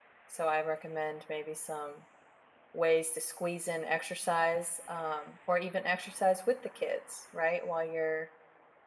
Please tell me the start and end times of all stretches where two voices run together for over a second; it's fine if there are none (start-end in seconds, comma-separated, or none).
none